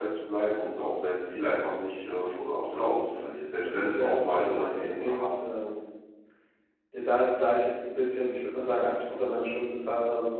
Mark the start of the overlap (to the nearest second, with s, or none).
4 s